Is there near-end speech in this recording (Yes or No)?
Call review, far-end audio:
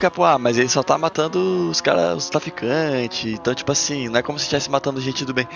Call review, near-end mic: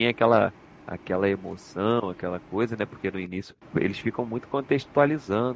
Yes